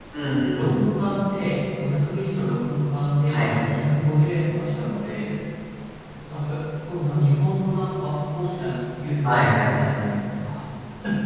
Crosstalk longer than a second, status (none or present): none